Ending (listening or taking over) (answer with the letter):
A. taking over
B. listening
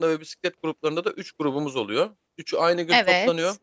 B